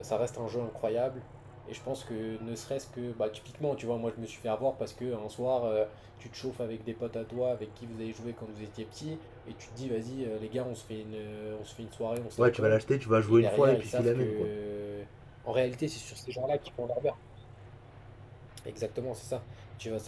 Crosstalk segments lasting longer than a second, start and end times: 13.3-14.5

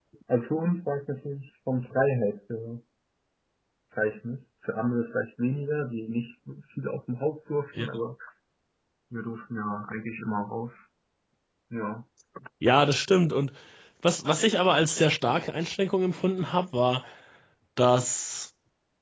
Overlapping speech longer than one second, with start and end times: none

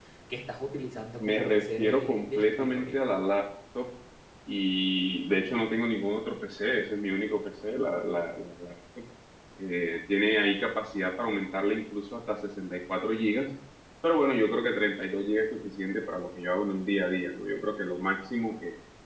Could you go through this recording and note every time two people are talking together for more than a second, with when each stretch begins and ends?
1.2-3.0

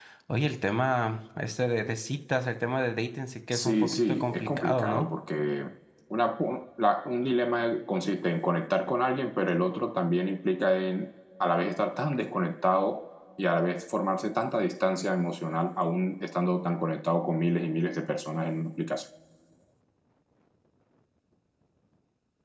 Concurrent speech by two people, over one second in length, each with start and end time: 3.5-5.1

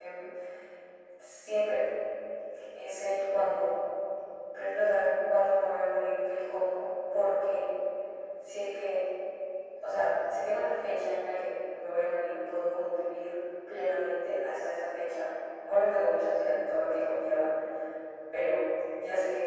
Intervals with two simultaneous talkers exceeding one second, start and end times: none

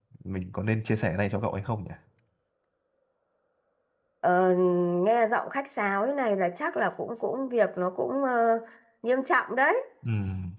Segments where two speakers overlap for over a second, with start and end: none

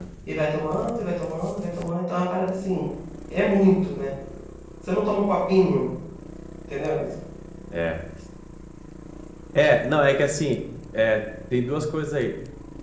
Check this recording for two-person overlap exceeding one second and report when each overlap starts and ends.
none

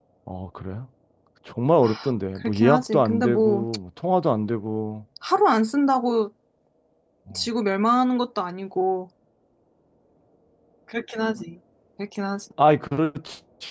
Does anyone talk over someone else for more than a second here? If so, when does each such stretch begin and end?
2.4-3.7

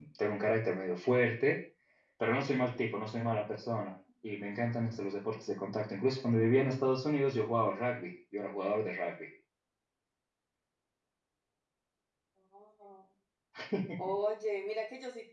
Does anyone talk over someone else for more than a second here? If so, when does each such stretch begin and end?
none

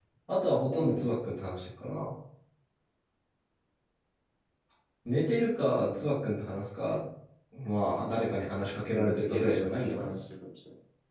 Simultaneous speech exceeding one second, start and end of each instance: 8.9-10.2

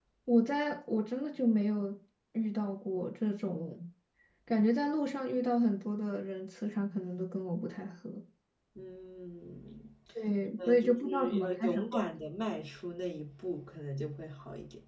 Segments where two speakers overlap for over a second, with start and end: 10.6-11.8

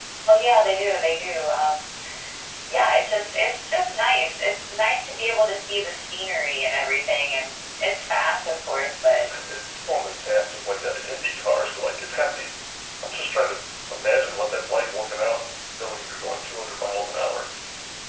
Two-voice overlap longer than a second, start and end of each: none

